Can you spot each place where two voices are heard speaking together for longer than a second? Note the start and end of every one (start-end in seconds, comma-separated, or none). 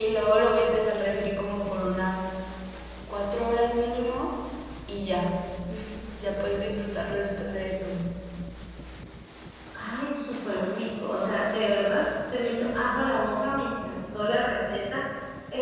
none